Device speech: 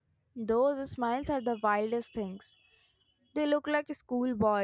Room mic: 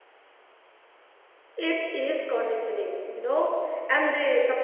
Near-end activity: present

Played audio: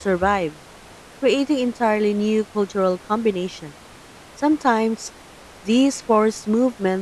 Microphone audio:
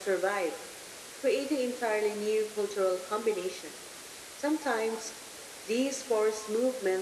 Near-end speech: none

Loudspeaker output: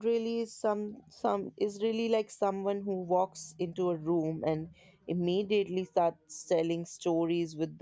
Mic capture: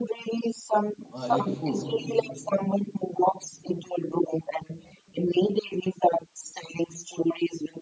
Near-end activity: present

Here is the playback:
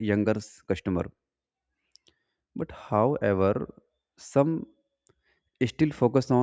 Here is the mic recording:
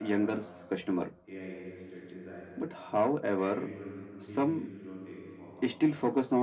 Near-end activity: present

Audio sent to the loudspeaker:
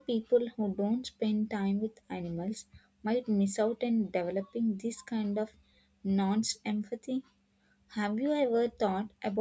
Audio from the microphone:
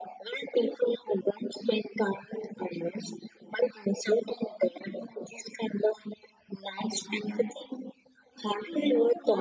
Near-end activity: present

